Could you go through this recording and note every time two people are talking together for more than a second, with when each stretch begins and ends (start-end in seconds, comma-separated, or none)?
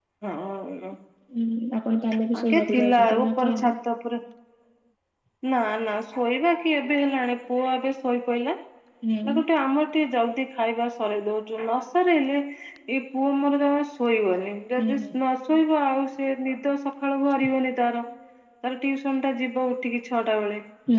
2.4-3.6